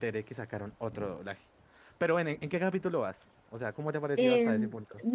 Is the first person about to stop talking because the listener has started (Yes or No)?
Yes